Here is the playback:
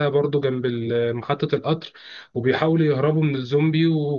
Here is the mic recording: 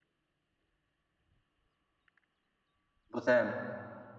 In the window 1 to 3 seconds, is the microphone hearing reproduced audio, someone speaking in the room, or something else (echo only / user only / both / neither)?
neither